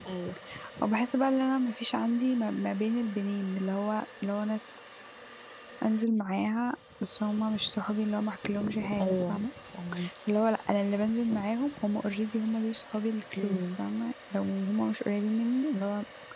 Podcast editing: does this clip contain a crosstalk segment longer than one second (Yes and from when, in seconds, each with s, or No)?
No